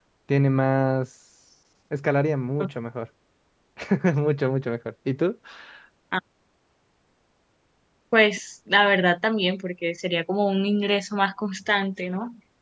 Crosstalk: none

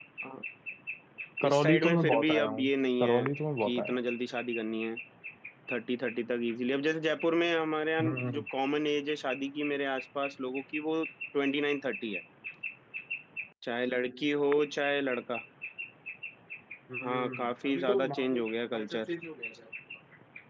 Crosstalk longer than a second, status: present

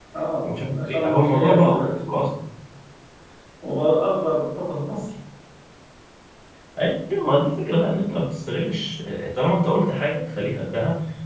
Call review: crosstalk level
present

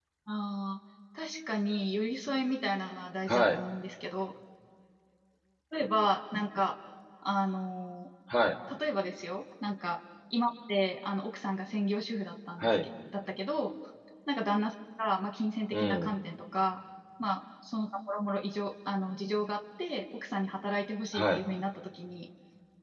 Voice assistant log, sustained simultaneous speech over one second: none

